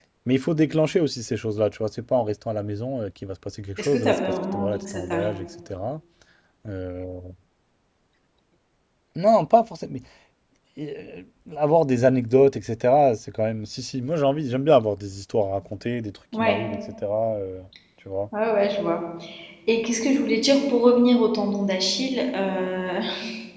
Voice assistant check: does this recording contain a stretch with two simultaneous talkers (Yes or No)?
Yes